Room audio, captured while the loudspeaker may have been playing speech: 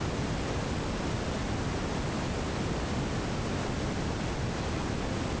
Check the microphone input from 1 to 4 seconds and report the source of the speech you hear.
neither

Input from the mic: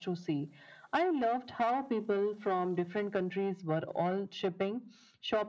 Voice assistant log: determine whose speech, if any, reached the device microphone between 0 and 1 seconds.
echo only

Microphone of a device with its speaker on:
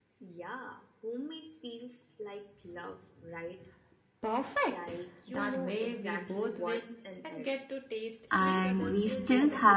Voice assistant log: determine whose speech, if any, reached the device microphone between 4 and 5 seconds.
echo only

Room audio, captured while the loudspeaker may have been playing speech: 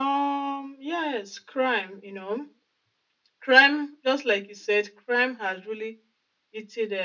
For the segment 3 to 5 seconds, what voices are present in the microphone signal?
echo only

